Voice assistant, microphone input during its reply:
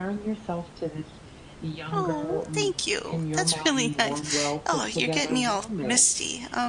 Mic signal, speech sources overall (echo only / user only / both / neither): both